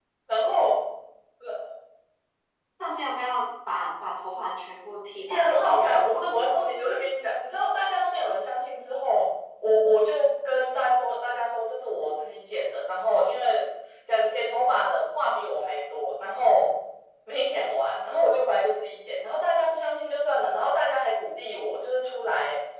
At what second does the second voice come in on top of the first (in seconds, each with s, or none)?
5.3 s